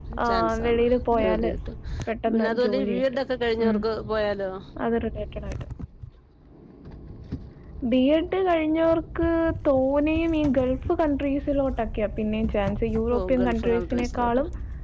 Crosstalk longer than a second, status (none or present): present